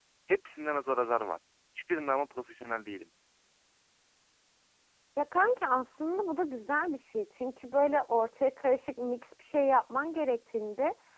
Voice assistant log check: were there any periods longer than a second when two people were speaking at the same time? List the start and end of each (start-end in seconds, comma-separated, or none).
none